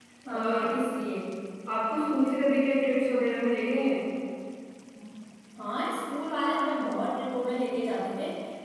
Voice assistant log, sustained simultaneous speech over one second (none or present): none